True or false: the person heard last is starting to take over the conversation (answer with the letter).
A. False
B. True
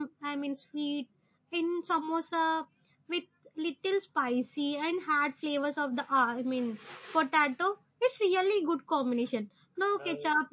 A